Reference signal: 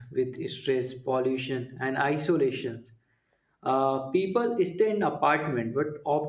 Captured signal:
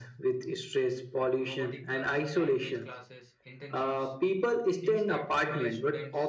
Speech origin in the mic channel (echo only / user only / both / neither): both